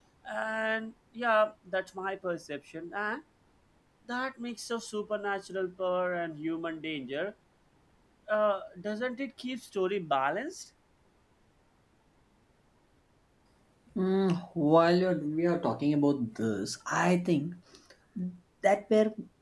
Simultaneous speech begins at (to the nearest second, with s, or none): none